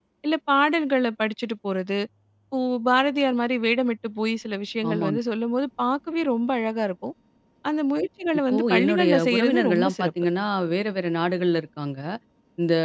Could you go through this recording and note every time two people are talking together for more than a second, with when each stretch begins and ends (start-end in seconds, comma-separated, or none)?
8.5-10.1